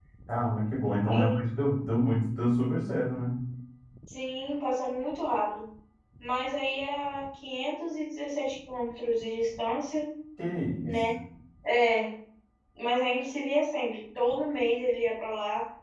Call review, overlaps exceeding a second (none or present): none